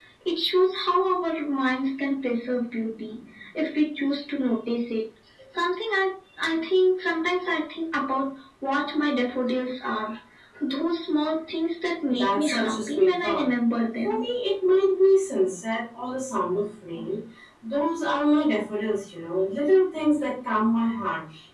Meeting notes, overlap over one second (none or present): present